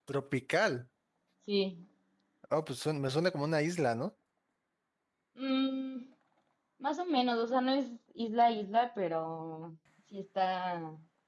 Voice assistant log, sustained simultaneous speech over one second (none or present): none